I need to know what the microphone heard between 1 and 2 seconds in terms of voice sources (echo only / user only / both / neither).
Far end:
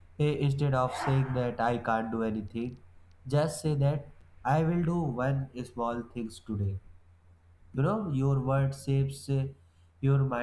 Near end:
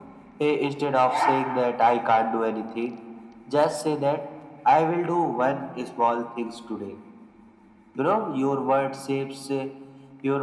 echo only